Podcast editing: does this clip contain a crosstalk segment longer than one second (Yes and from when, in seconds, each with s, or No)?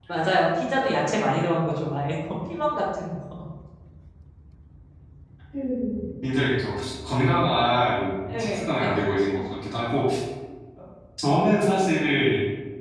No